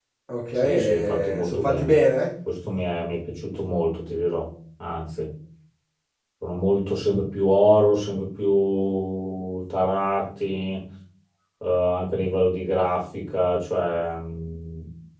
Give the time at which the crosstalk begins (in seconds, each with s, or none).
0.5 s